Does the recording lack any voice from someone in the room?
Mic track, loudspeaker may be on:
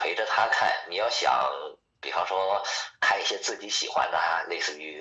Yes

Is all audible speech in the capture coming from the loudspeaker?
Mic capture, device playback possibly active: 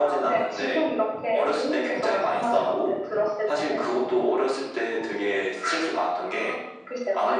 Yes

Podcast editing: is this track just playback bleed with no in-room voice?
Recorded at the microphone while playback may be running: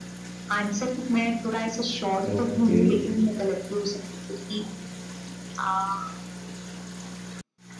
No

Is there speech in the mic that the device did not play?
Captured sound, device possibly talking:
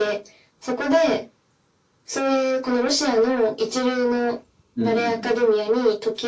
Yes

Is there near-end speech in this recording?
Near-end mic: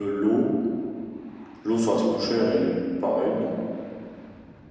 Yes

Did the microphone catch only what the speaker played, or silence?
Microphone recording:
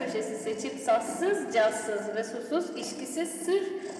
Yes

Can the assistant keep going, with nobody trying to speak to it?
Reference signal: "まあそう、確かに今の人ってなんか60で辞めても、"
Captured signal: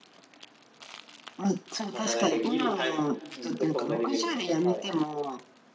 No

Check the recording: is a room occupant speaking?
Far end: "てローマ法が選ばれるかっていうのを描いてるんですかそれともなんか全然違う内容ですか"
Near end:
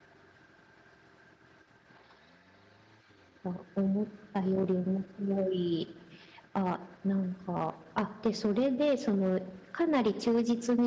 Yes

